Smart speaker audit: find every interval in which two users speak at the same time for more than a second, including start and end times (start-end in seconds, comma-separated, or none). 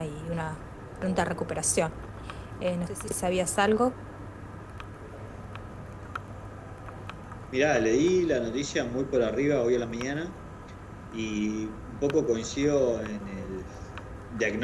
none